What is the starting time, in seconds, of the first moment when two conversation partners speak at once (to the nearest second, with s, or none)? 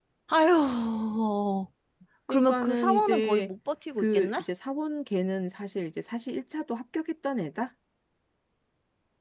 2 s